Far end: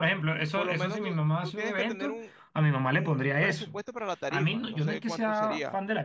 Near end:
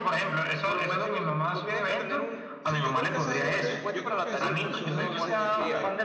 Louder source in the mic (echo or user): echo